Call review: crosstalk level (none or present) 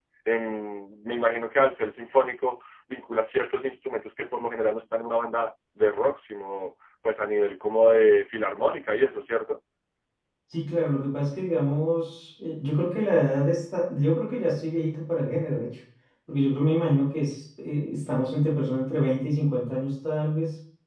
none